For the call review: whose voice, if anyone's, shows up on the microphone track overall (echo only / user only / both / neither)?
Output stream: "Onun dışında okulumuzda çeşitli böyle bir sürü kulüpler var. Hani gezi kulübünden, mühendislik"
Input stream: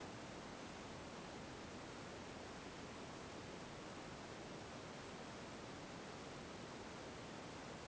neither